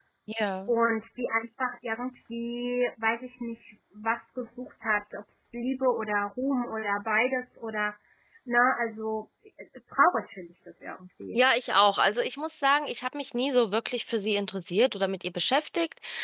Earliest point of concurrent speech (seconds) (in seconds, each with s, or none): none